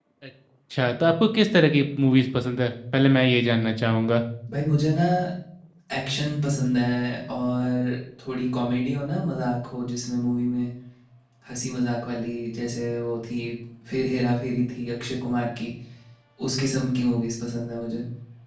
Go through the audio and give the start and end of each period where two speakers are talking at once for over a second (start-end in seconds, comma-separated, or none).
none